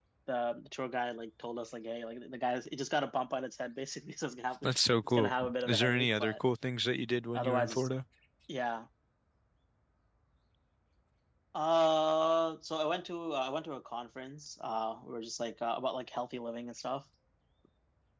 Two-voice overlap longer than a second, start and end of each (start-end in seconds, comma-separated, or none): 5.0-6.3